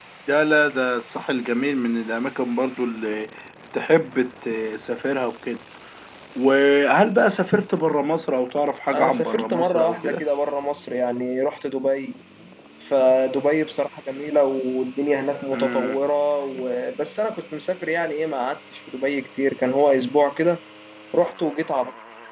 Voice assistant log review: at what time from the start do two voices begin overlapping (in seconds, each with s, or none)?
8.9 s